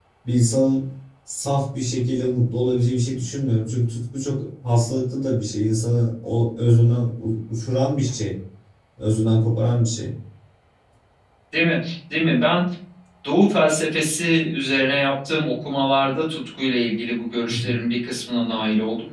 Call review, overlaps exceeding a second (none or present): none